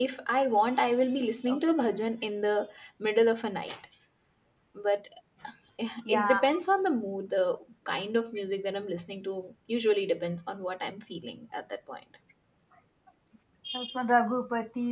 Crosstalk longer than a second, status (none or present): none